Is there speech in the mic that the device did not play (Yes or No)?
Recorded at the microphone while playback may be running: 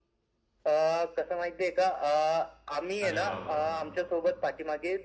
Yes